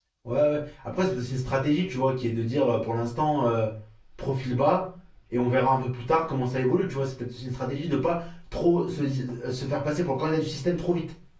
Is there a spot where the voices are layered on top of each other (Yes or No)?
No